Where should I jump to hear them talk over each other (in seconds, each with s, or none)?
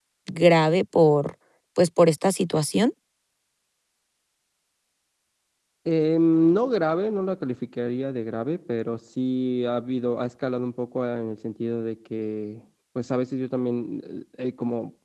none